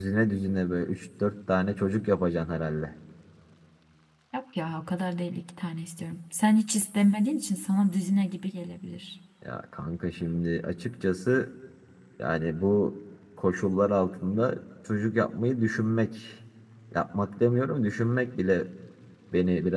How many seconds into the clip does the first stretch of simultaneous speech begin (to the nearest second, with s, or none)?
none